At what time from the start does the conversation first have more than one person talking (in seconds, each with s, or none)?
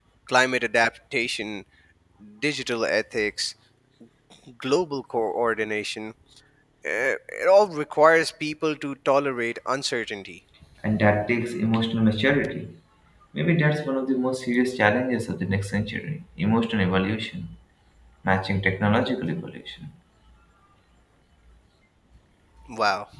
none